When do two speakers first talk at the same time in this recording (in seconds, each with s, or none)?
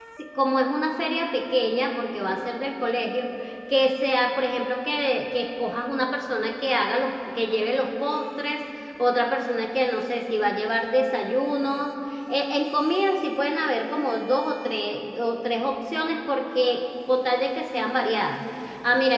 none